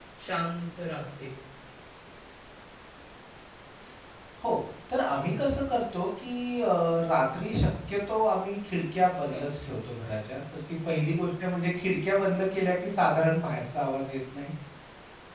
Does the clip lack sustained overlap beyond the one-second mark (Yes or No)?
Yes